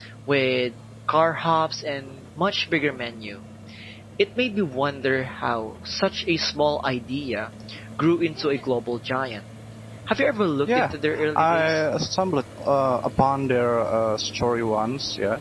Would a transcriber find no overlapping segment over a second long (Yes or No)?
Yes